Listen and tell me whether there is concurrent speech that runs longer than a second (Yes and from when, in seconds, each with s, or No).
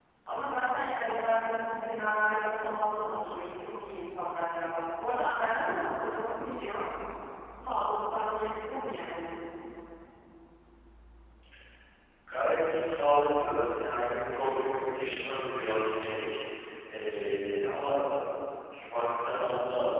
No